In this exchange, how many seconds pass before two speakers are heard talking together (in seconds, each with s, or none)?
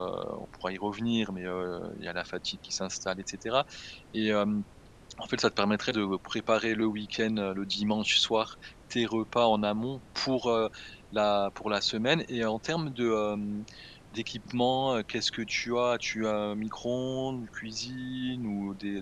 none